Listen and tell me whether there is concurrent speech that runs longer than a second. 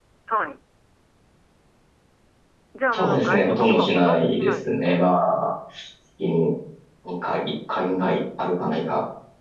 Yes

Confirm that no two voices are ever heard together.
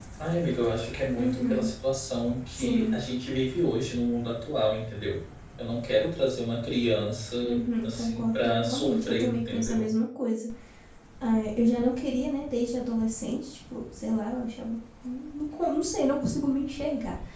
No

